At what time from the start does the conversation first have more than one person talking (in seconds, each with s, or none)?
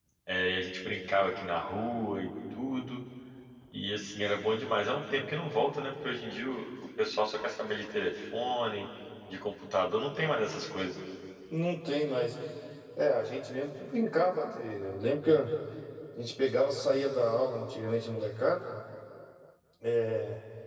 none